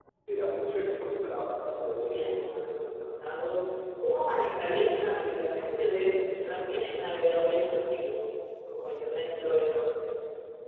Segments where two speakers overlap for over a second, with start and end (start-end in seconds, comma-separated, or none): none